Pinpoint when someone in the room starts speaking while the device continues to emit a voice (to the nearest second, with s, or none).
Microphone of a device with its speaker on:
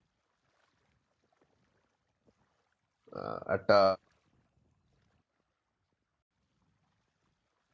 3 s